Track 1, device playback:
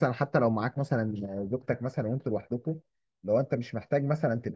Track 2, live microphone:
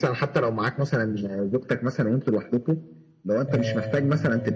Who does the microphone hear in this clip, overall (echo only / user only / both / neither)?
both